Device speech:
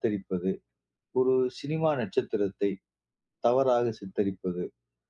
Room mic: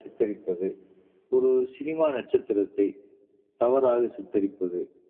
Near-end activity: none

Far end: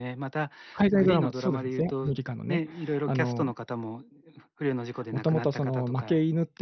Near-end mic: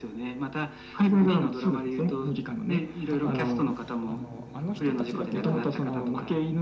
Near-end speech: present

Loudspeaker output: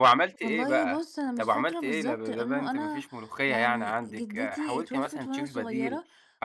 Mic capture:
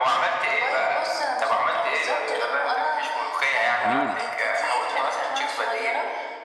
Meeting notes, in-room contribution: present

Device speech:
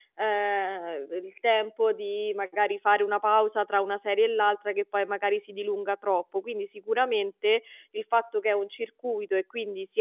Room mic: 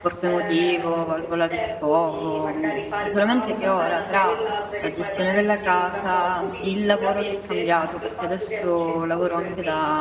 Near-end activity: present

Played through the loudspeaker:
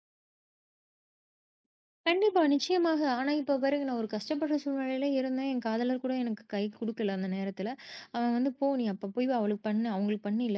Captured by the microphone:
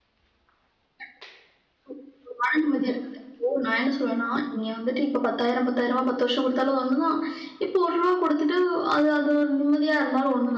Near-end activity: present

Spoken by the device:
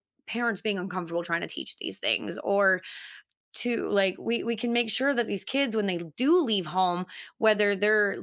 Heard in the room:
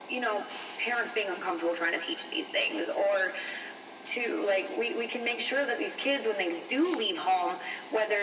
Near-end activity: none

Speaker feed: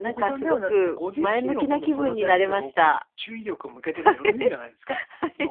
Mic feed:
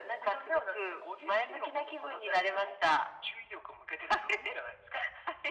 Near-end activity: none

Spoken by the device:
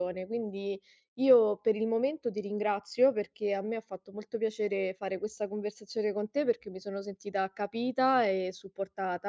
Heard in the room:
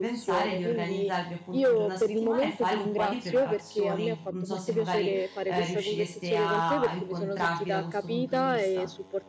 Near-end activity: present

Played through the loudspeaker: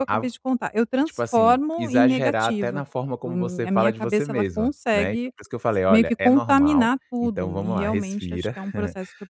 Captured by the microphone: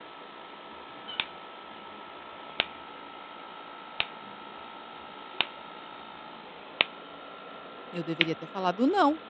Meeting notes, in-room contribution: present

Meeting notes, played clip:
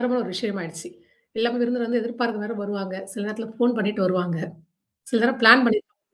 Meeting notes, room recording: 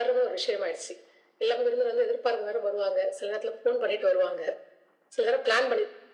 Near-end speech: none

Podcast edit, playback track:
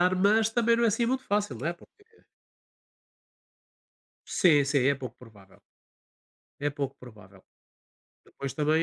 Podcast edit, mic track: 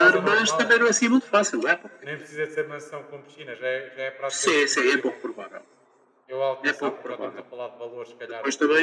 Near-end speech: present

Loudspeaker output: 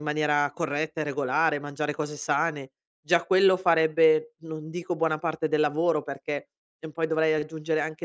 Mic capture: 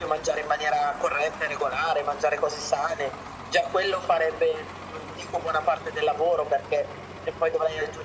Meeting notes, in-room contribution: none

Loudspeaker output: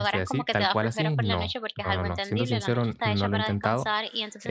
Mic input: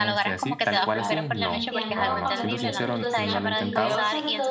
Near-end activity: present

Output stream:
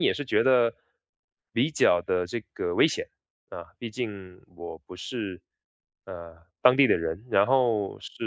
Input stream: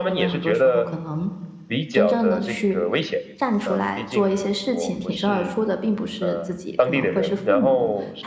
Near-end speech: present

